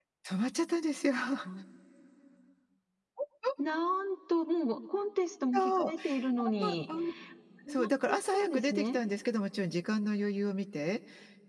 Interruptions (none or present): present